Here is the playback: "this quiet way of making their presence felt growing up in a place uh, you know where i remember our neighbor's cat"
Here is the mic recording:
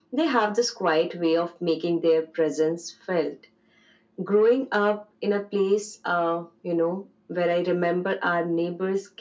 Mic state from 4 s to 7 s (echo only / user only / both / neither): echo only